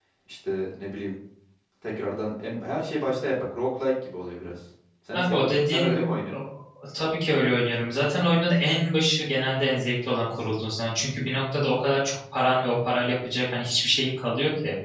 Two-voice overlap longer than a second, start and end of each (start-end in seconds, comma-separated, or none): 5.1-6.4